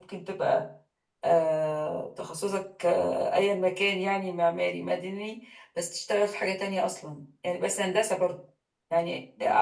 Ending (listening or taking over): listening